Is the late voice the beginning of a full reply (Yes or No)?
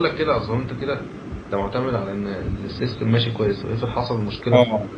Yes